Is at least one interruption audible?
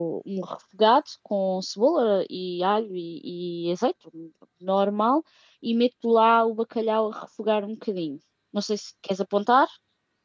No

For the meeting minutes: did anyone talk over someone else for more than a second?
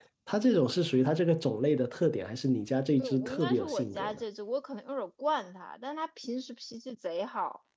Yes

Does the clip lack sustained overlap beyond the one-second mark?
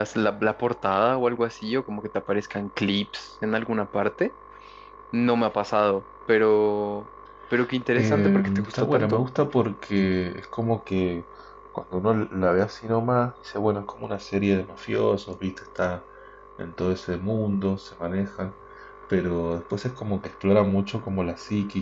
No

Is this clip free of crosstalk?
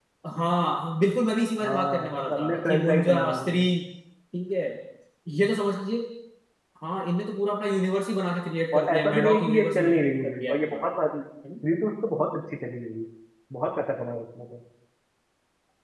No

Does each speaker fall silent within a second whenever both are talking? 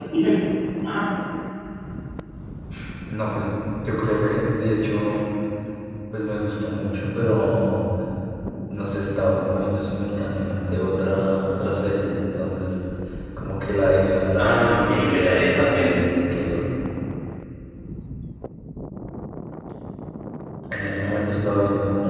No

